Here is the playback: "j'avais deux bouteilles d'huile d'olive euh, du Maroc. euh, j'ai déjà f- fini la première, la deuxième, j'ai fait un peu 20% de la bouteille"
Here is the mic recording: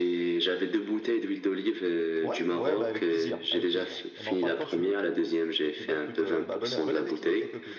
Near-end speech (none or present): present